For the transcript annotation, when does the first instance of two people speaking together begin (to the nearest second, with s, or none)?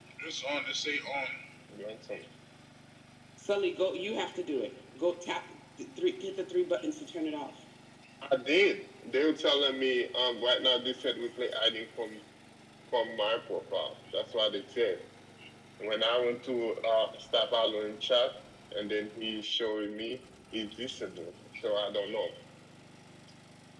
none